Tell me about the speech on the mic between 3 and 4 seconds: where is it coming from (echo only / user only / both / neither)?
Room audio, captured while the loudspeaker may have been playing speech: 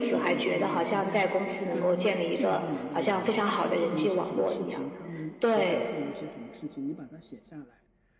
both